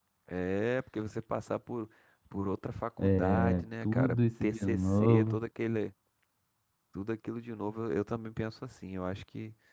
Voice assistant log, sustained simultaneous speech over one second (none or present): present